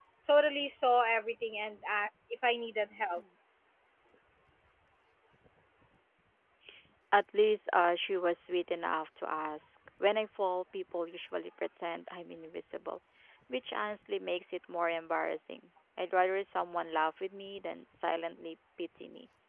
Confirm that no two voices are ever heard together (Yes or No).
Yes